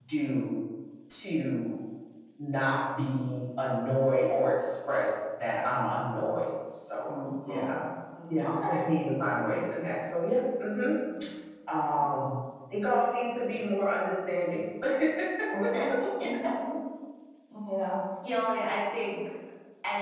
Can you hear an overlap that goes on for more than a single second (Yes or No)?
No